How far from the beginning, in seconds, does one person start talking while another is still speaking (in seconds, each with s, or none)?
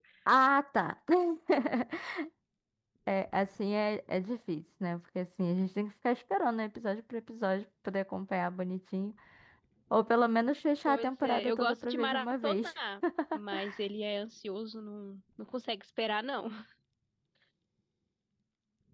10.9 s